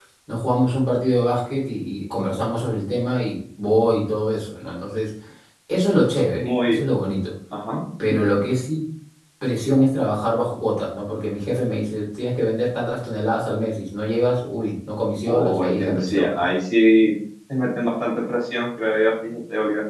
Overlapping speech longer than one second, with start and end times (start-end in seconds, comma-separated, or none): 15.2-16.4